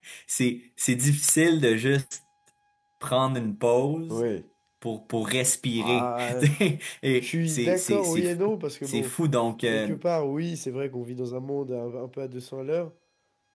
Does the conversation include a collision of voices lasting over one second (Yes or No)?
Yes